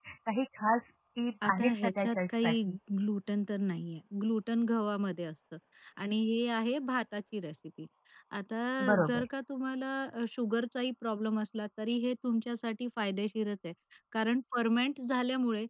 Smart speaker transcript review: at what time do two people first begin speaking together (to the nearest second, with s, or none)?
1 s